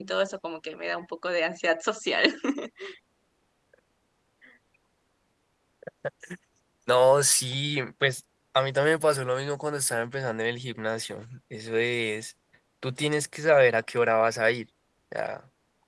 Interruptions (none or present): none